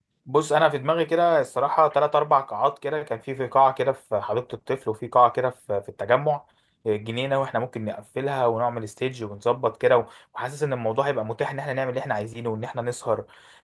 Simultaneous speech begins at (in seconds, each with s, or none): none